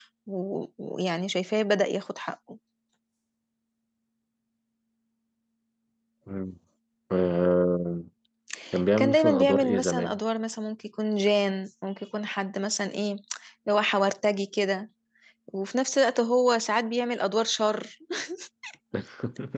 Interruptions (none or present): present